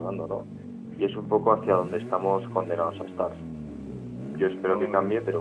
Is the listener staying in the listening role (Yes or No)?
Yes